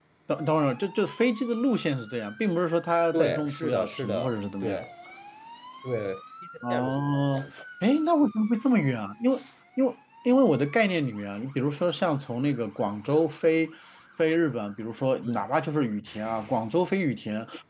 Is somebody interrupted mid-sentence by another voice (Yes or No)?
Yes